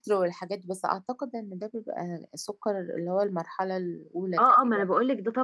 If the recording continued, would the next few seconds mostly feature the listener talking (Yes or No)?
Yes